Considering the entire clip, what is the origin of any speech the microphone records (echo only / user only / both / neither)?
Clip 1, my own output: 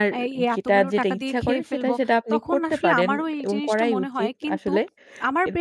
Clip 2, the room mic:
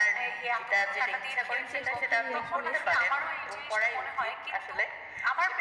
both